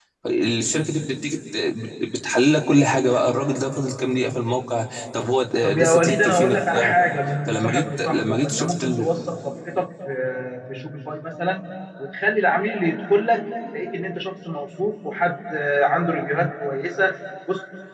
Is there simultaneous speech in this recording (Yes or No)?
Yes